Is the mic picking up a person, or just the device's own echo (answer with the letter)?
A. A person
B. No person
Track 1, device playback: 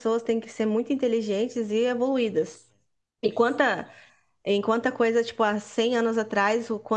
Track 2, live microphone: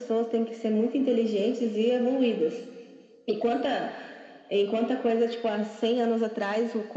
B